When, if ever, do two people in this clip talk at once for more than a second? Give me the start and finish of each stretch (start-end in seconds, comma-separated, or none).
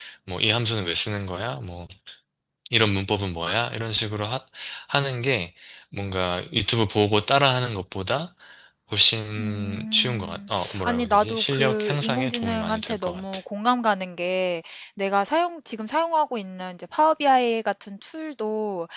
9.4-13.2